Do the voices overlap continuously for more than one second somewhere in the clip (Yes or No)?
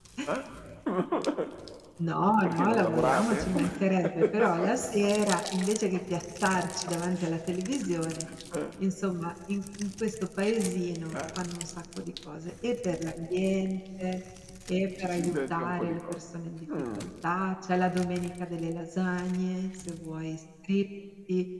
Yes